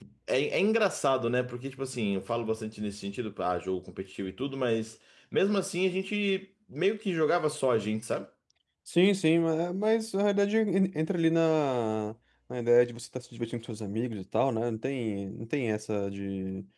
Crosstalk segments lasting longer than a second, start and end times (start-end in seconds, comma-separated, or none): none